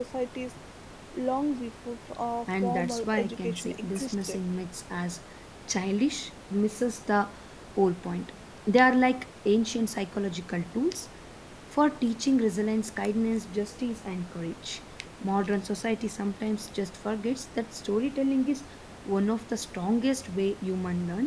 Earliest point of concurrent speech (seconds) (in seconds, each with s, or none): 2.5 s